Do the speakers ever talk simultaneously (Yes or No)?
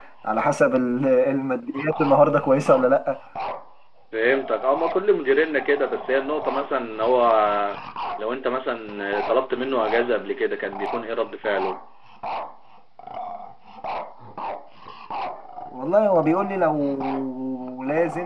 No